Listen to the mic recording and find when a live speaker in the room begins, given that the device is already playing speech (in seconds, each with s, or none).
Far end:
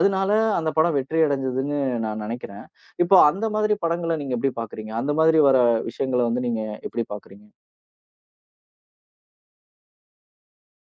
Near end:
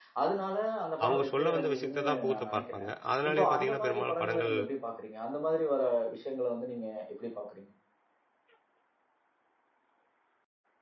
1.0 s